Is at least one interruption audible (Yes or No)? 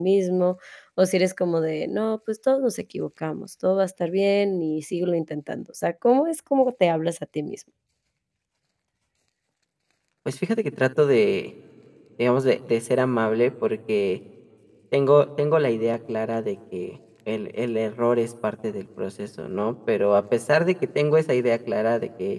No